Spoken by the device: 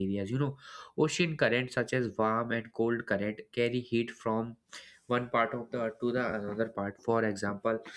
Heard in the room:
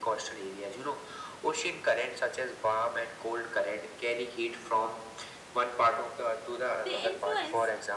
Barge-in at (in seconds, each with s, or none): 6.8 s